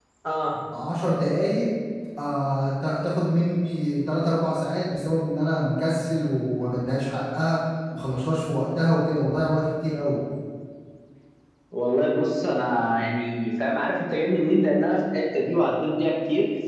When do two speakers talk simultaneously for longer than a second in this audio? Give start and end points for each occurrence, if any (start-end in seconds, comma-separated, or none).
none